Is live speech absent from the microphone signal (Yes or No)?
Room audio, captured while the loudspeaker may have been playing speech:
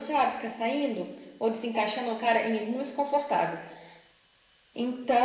Yes